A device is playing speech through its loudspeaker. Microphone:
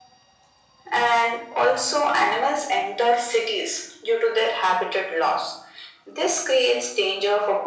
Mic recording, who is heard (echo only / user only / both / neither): echo only